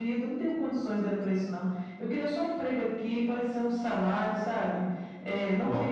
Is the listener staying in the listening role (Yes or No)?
No